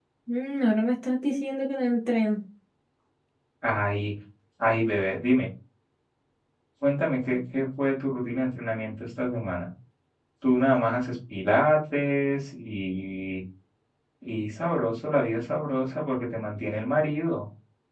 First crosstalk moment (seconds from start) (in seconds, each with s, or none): none